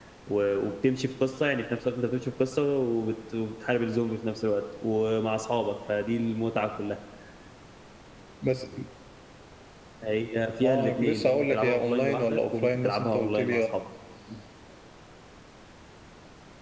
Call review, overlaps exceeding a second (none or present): present